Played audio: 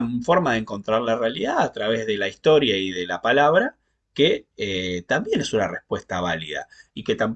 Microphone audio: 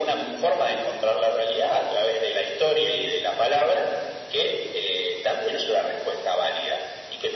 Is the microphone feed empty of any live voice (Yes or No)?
Yes